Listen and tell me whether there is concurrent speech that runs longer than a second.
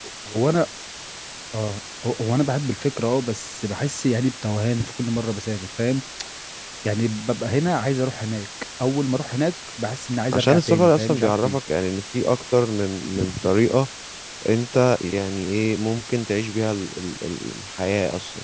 Yes, from 10.3 s

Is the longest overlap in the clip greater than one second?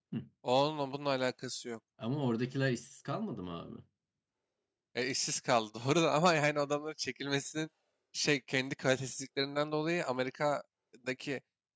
No

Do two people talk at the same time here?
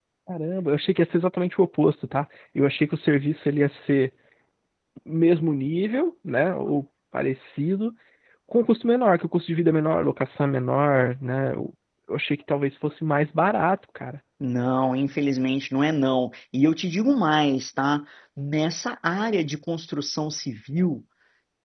No

